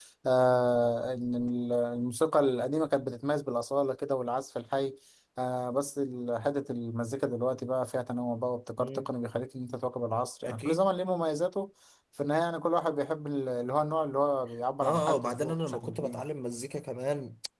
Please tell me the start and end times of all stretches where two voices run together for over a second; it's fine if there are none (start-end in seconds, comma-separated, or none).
14.8-16.2